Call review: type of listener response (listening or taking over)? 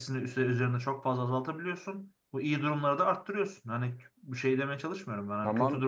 listening